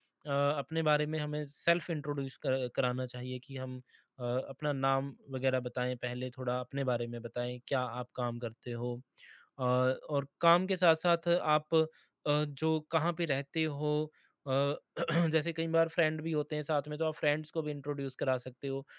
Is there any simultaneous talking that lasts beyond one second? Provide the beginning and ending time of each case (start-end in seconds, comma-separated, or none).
none